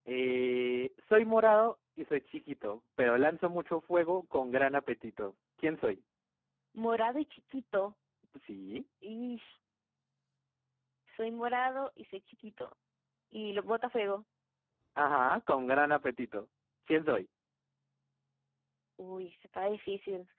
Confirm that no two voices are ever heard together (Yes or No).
Yes